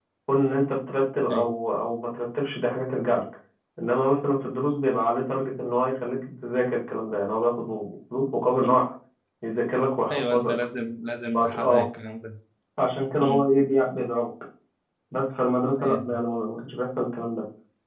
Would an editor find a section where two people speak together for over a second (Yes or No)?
No